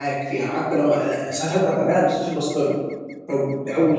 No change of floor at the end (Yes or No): Yes